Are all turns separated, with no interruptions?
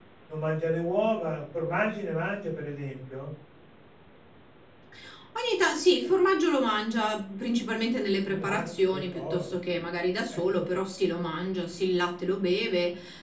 No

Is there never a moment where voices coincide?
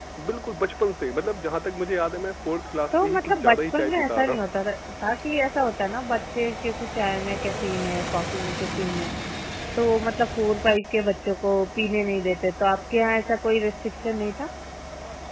No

